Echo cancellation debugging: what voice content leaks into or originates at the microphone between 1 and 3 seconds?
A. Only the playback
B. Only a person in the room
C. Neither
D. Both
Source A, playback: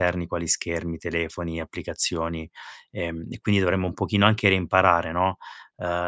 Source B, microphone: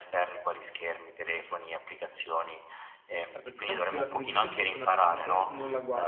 A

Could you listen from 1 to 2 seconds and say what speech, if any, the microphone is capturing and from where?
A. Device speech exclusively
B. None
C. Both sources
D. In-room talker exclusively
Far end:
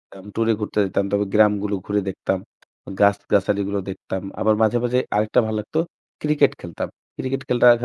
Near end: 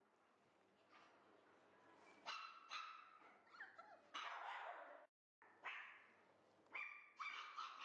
B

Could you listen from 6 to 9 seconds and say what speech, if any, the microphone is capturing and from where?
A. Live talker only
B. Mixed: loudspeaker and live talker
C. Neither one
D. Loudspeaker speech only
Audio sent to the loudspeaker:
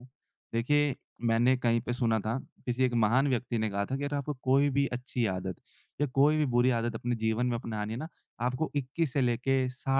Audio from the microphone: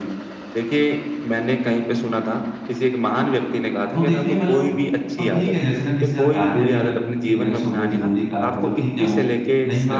B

